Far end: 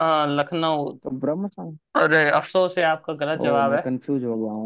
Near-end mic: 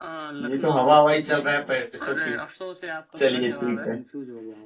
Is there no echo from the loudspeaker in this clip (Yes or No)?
No